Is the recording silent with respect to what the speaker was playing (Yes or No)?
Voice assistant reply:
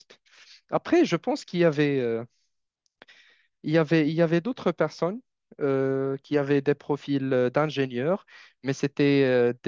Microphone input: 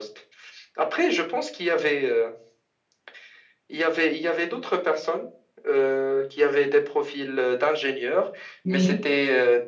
No